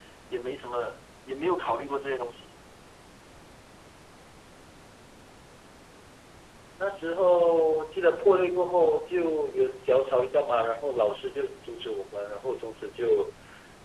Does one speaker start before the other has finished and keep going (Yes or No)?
No